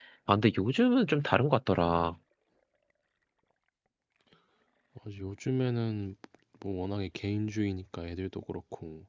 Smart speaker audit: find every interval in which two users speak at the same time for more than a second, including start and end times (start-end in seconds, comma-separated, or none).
none